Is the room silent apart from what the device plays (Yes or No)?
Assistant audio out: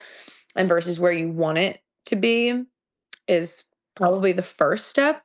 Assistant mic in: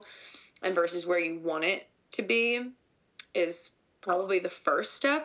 Yes